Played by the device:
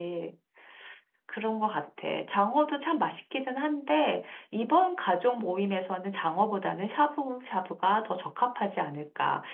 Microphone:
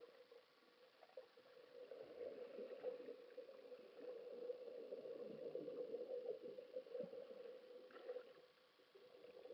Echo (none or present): none